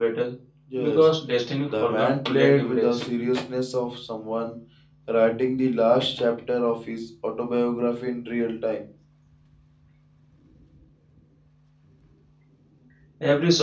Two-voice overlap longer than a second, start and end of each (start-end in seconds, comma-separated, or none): 1.7-3.0